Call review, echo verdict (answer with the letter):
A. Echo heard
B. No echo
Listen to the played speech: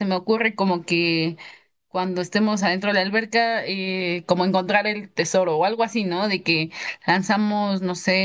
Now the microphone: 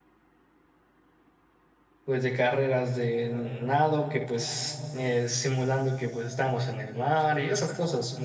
B